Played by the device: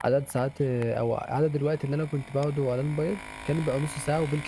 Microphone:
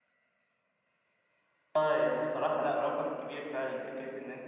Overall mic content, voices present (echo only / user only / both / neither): user only